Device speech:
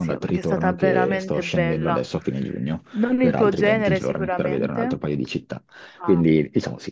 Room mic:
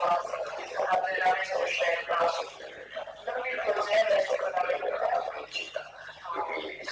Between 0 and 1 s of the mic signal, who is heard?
echo only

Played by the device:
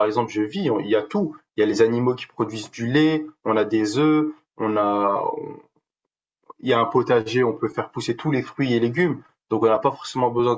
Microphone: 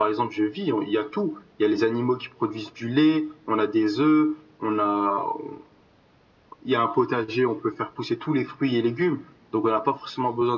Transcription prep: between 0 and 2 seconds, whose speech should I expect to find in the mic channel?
echo only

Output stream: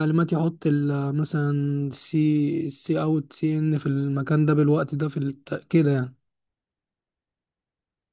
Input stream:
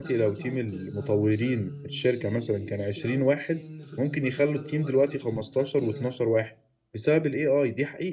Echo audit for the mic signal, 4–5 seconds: both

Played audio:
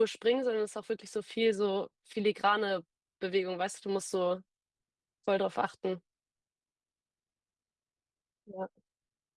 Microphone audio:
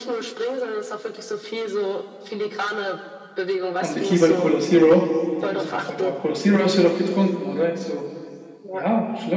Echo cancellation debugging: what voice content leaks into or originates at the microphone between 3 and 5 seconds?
both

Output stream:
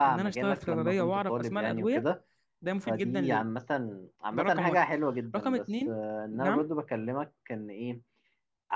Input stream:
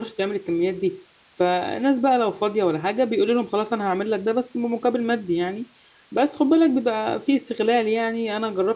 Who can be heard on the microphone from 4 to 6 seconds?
user only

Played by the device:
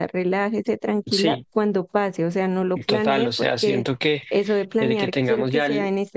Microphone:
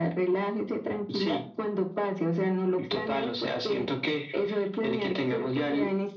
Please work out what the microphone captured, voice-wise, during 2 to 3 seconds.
echo only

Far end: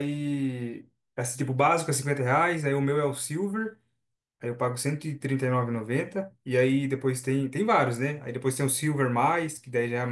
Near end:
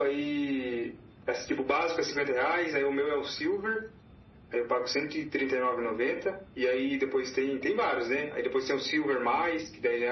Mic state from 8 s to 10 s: echo only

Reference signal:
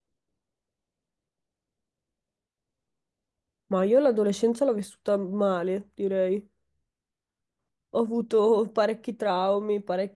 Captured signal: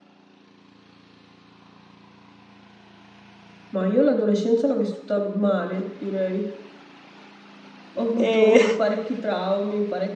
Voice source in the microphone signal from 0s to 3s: neither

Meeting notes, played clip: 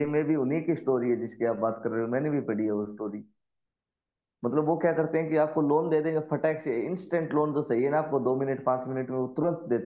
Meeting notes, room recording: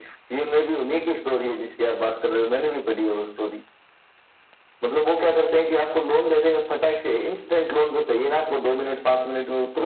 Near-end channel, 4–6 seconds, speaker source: echo only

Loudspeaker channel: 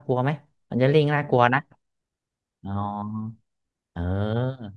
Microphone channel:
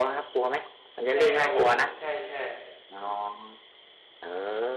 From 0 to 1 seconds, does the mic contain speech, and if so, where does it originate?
echo only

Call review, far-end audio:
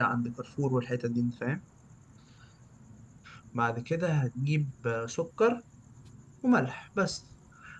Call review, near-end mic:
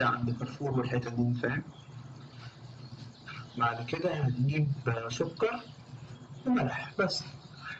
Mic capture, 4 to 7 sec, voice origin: echo only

